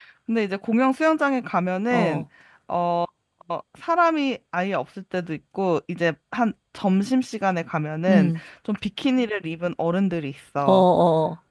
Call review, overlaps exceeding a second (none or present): none